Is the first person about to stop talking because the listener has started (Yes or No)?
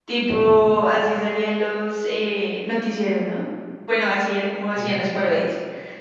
No